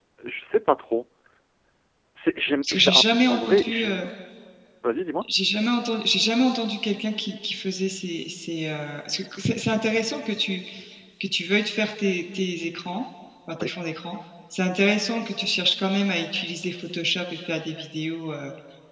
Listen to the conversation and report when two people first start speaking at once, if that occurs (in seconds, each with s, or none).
2.6 s